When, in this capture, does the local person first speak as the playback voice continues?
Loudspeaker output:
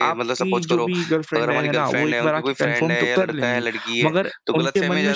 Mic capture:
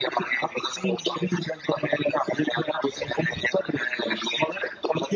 none

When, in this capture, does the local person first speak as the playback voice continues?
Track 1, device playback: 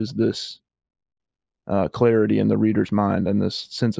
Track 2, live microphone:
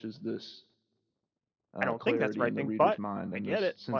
1.8 s

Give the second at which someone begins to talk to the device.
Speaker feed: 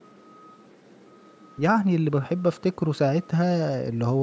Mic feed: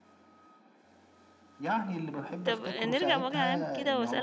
2.4 s

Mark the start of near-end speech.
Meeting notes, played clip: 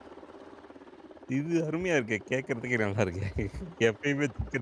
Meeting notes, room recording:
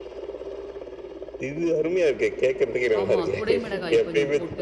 3.0 s

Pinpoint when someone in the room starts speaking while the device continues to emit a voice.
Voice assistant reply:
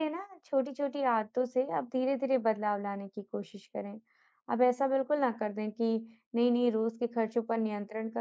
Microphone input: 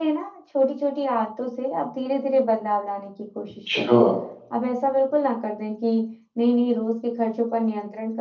3.5 s

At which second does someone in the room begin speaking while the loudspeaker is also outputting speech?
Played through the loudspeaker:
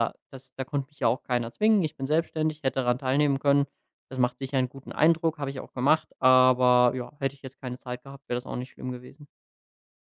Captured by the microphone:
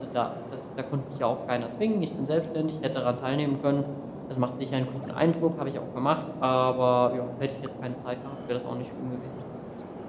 none

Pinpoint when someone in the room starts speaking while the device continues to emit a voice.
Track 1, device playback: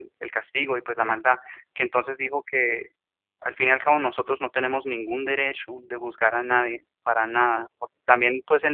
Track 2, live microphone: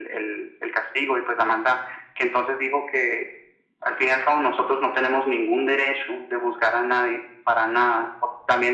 none

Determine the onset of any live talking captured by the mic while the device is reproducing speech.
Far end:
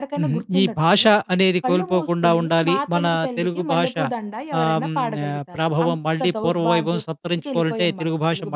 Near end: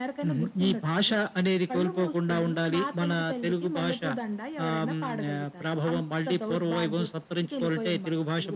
none

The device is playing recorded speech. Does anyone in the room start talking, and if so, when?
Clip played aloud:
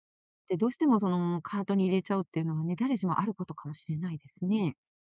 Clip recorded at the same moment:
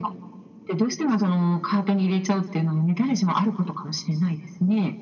none

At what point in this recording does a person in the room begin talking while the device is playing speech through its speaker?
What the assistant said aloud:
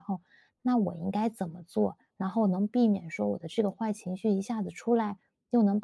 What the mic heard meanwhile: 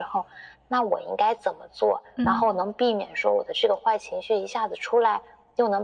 2.1 s

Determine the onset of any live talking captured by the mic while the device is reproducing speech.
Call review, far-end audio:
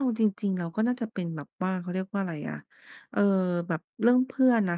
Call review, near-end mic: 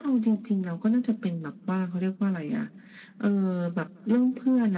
none

